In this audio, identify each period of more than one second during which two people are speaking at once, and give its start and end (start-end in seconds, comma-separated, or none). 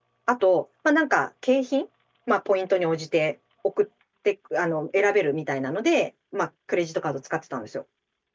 none